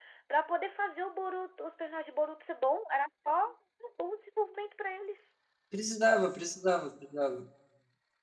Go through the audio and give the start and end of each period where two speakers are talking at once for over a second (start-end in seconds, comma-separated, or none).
none